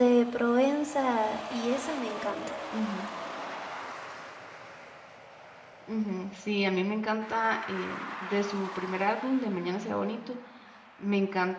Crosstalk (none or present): none